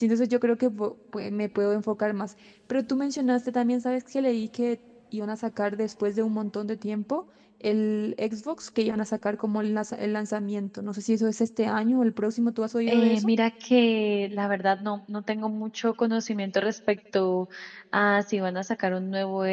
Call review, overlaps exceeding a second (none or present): none